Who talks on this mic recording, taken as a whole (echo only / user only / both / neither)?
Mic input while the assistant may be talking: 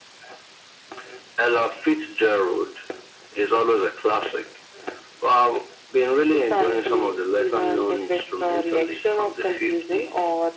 echo only